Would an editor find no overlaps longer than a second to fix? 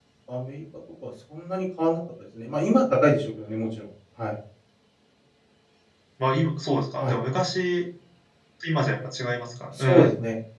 Yes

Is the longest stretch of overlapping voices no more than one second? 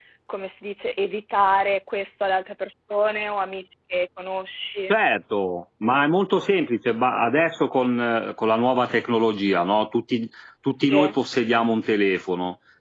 Yes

